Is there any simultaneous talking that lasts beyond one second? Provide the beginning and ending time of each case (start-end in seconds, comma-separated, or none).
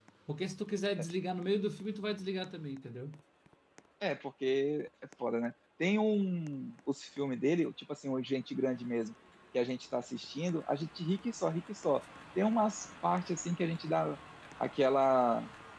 none